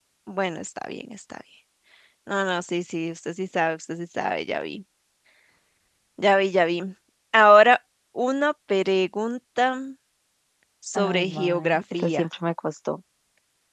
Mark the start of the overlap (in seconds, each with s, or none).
11.0 s